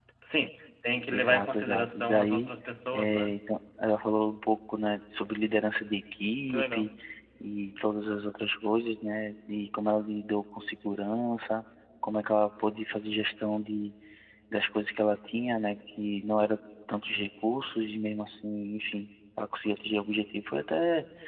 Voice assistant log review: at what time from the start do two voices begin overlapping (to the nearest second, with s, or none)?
1 s